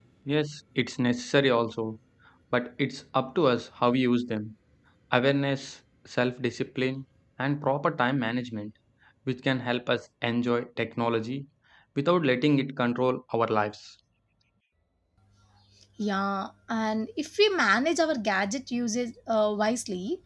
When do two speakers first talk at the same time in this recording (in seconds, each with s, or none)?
none